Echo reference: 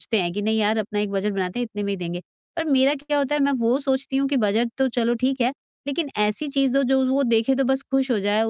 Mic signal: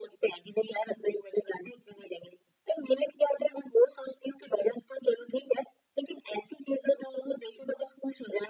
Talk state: echo only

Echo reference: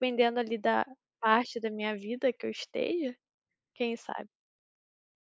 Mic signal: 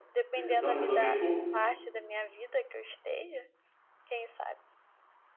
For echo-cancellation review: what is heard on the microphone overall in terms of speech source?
both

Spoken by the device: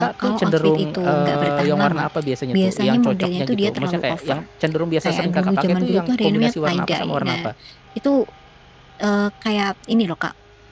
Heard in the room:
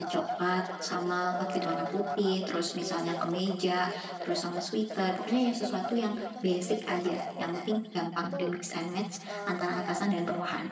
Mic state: both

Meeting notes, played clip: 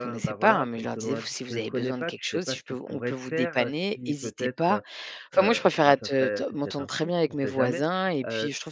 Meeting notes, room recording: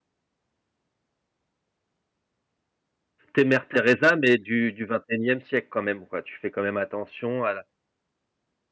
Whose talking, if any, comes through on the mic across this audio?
user only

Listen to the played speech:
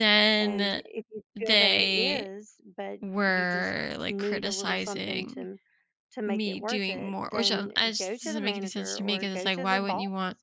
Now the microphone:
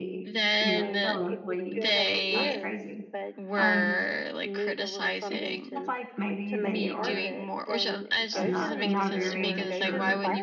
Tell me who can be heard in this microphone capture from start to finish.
both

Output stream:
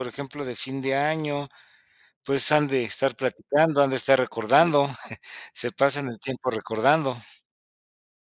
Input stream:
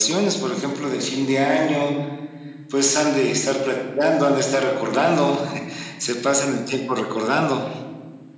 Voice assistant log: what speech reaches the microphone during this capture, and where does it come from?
echo only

